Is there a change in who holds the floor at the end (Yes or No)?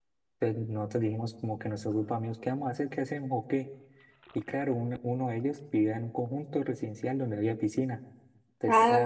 No